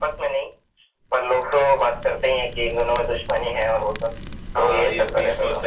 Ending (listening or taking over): taking over